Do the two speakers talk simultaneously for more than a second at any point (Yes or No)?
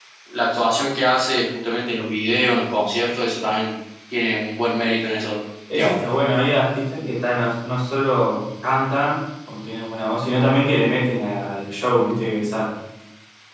No